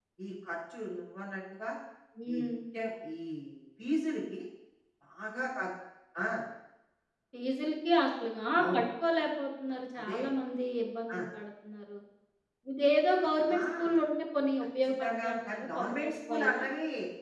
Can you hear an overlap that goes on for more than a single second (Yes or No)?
Yes